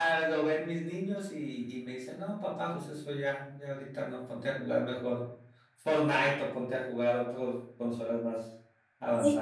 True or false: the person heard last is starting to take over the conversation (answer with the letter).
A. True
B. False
A